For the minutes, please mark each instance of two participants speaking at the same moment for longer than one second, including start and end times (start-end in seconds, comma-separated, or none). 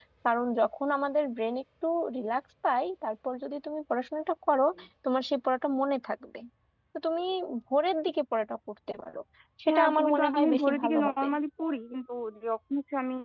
9.7-11.3